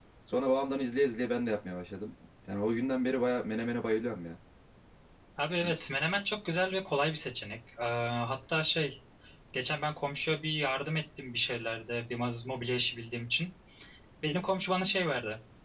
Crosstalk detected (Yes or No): No